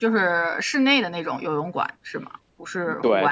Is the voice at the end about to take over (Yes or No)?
Yes